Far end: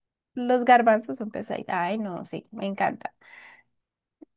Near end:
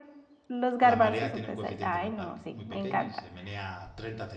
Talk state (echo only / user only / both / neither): both